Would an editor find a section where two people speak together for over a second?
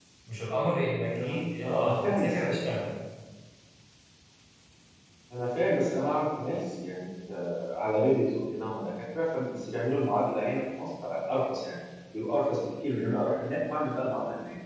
Yes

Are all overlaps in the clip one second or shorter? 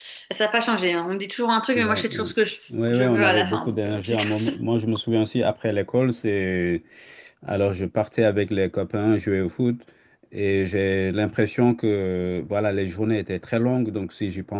No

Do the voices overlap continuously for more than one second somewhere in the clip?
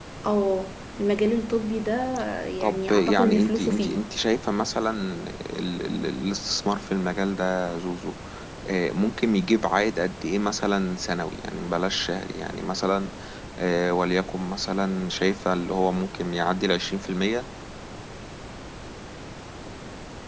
Yes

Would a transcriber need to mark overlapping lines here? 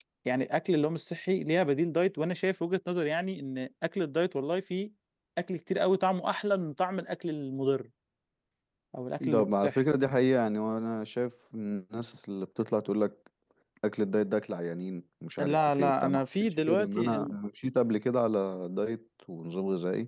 Yes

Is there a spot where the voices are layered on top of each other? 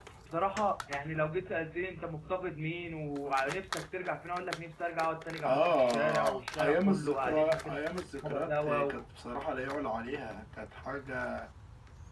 Yes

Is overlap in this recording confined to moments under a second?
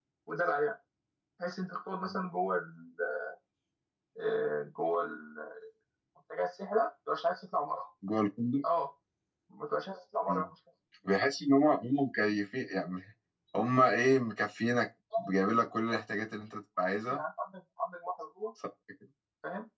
Yes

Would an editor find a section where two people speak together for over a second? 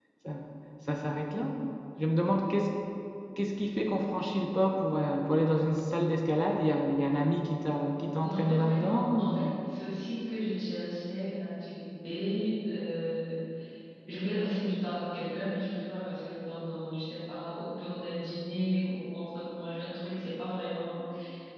Yes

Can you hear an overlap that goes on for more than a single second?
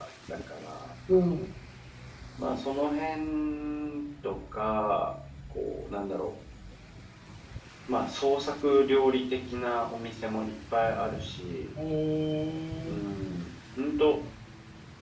No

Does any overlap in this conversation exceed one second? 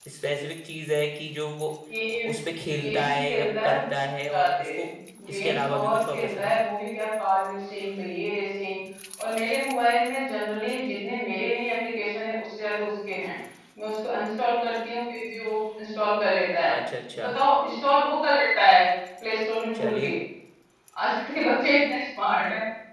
Yes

